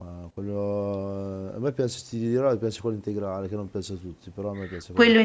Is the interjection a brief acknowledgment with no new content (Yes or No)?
No